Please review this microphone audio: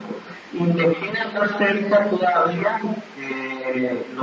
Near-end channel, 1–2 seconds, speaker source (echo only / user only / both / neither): echo only